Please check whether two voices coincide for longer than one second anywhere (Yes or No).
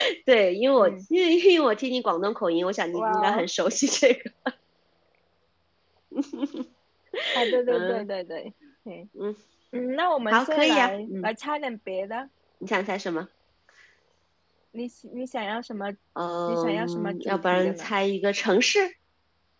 Yes